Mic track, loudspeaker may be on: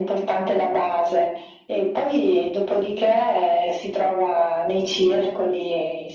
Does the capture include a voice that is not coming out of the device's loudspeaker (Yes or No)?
No